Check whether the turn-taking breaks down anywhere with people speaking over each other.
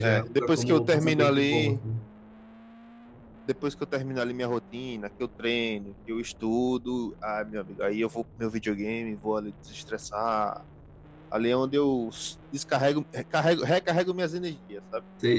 Yes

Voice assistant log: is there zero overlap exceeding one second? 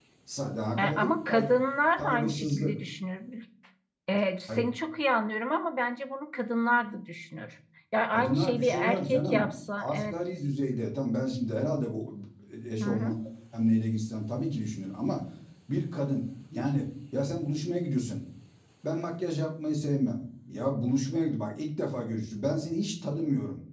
No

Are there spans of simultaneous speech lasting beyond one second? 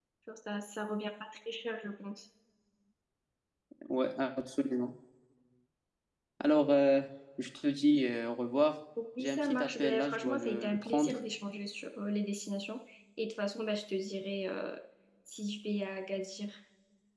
Yes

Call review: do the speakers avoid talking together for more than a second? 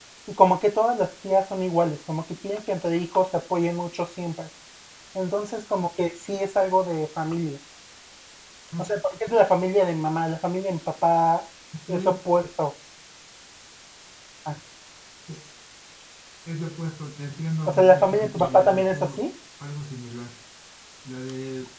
No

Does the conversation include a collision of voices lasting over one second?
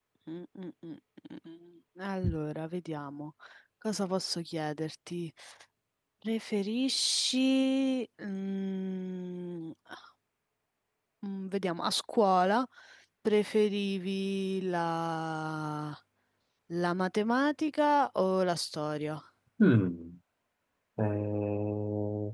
No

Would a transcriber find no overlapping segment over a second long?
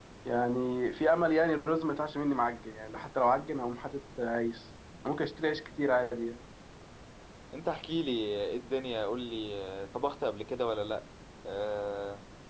Yes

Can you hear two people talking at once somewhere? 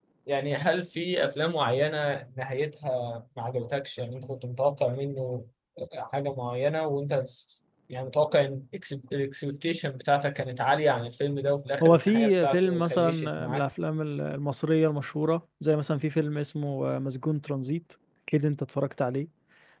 Yes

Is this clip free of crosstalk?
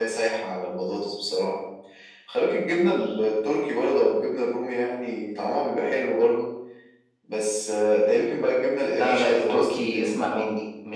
No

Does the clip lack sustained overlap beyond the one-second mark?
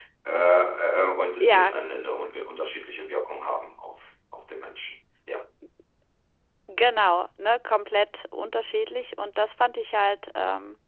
Yes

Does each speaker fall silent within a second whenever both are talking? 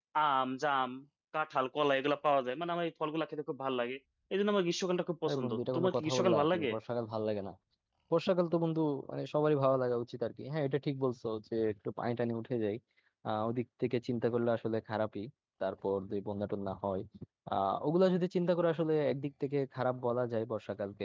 No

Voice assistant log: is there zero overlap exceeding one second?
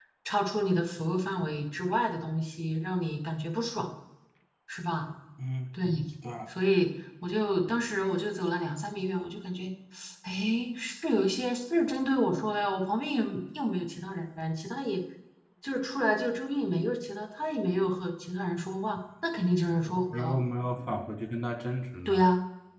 Yes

